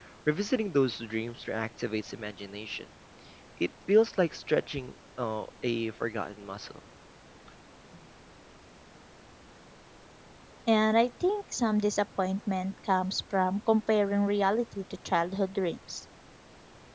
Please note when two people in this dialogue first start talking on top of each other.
none

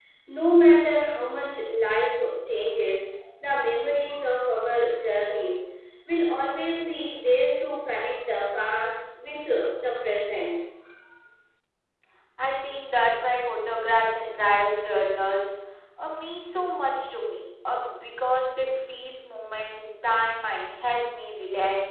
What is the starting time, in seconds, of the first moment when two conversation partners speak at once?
none

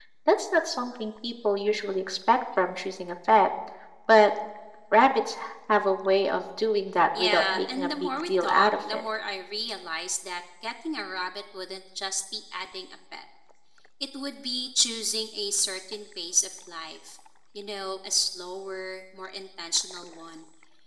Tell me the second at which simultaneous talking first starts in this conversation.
7.2 s

